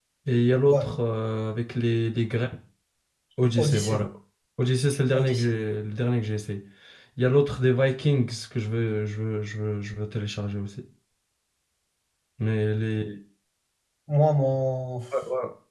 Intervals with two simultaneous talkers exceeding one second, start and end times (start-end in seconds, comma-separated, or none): none